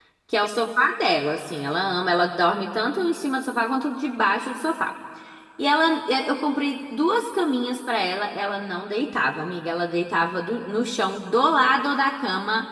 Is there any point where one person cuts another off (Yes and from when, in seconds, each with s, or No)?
No